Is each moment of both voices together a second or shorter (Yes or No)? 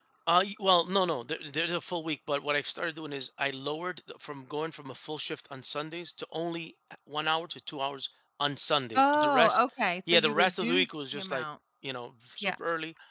No